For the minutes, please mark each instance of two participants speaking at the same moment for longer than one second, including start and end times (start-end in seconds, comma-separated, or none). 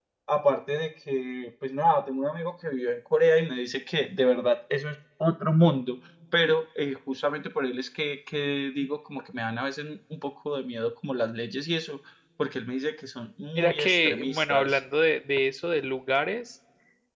13.6-14.8